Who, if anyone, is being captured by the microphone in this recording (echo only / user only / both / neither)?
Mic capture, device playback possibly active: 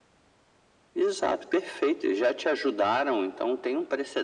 echo only